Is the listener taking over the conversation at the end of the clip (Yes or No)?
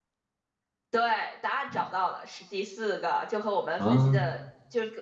No